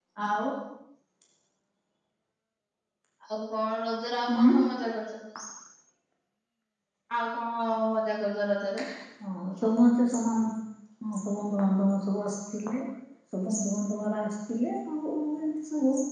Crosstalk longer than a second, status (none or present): none